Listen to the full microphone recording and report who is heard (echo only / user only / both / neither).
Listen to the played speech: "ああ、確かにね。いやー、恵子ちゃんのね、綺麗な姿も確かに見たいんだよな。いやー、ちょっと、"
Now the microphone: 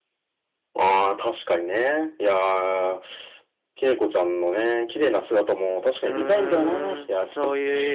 both